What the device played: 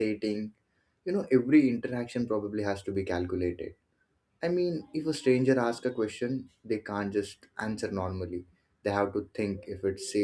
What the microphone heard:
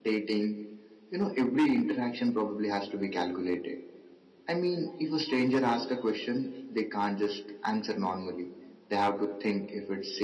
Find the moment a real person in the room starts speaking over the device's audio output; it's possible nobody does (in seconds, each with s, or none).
none